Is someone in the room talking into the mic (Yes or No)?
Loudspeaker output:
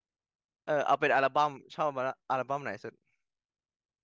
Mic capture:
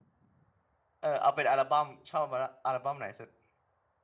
No